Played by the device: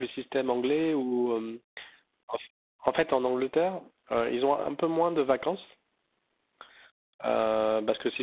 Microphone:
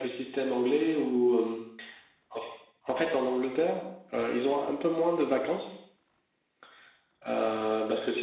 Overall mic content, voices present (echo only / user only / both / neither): echo only